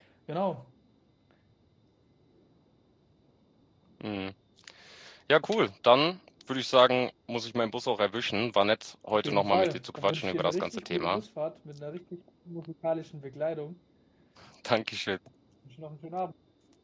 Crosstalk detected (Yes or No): Yes